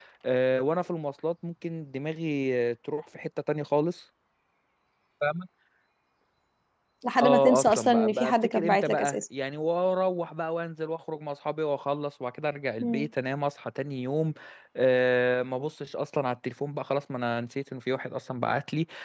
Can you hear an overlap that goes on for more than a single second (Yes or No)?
Yes